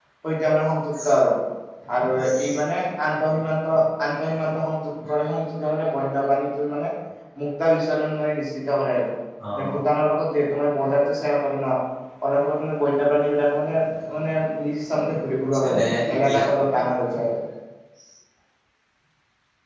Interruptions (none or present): present